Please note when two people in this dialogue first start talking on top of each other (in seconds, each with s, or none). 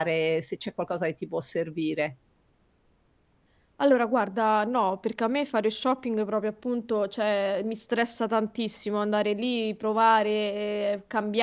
none